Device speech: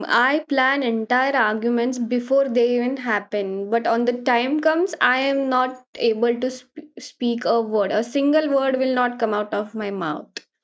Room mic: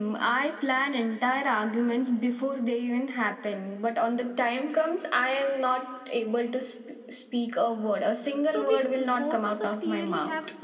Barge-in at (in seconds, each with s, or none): 8.4 s